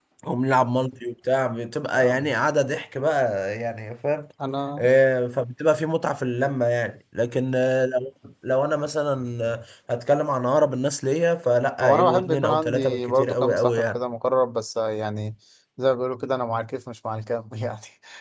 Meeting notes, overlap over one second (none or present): present